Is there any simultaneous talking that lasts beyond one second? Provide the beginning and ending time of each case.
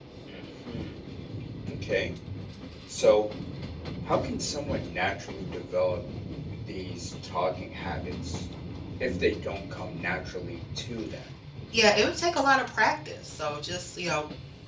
none

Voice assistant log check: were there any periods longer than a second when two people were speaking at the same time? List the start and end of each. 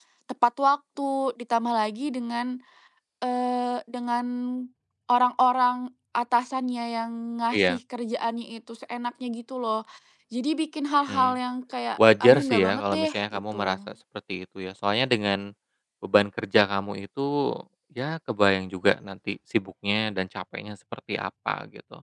12.2-13.8

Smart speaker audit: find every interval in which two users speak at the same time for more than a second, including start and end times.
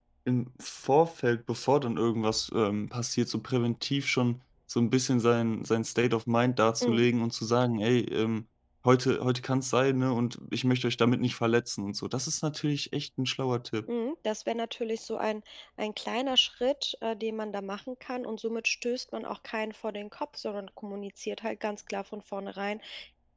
none

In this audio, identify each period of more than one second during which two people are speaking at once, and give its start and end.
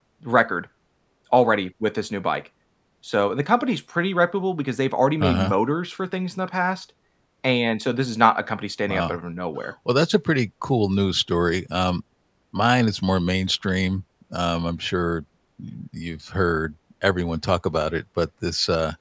none

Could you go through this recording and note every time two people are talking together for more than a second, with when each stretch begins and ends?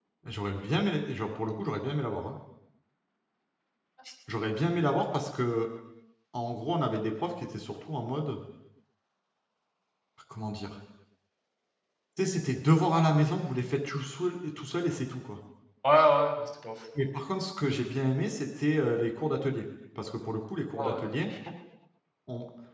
none

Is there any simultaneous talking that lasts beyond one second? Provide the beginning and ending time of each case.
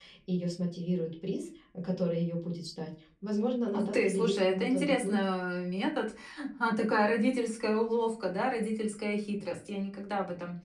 3.8-5.2

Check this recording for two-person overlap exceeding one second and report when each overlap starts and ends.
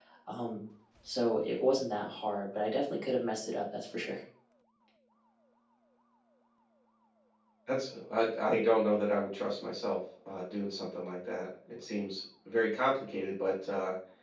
none

